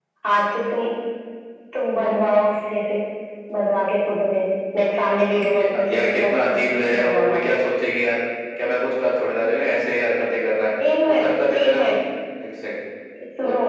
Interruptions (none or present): present